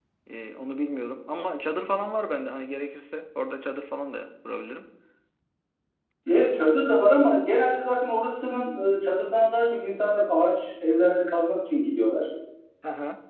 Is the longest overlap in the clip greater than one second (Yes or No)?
No